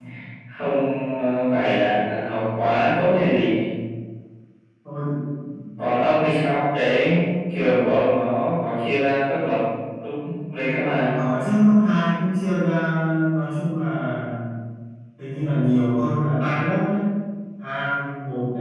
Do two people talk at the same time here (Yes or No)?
No